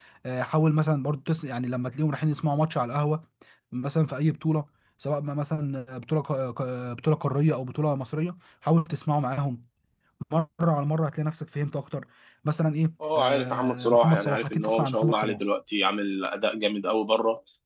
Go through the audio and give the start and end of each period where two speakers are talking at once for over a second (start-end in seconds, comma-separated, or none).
13.2-15.4